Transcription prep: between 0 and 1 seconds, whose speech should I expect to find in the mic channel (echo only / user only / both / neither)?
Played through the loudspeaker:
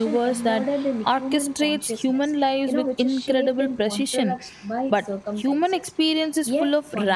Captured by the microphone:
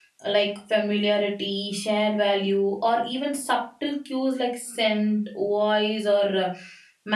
user only